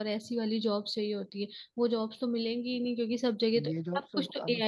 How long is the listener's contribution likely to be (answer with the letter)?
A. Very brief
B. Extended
B